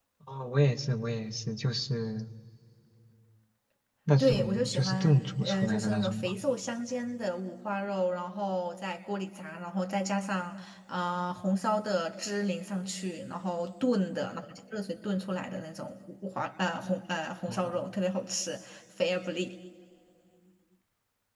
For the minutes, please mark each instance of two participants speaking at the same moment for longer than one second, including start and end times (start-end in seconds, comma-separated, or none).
4.2-6.3